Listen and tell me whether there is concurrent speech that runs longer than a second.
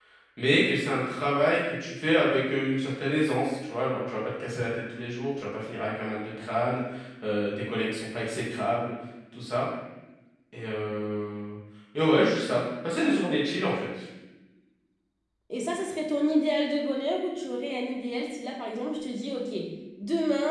No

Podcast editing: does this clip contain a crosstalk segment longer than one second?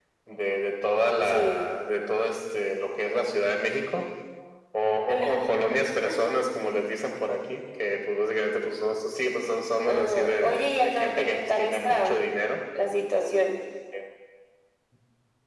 Yes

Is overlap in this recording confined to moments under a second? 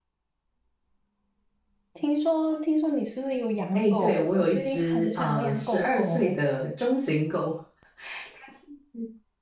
No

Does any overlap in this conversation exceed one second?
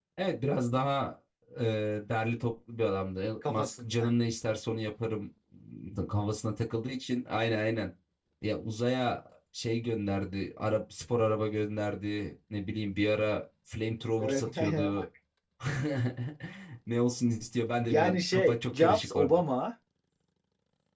Yes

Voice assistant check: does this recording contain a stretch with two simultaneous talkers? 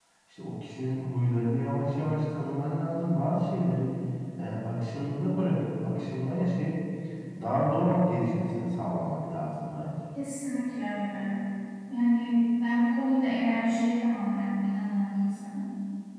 No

